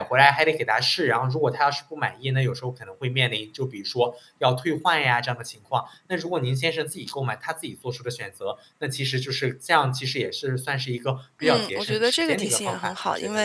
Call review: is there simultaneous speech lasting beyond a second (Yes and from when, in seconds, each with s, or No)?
Yes, from 11.4 s